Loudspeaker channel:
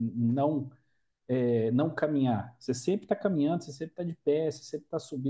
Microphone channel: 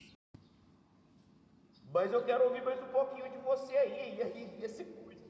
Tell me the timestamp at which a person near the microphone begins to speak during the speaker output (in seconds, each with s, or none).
1.8 s